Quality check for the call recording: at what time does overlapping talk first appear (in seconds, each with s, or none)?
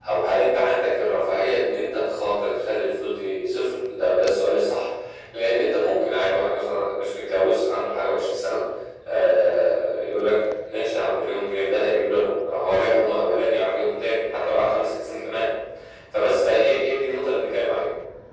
none